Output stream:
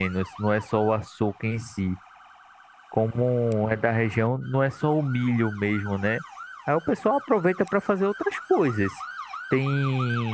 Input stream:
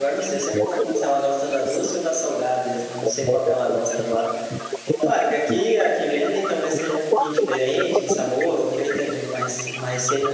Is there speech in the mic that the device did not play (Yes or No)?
Yes